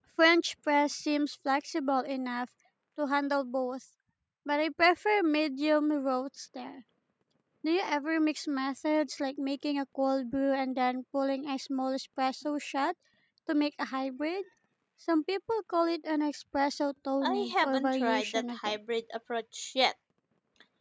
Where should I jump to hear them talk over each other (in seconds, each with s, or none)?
17.2 s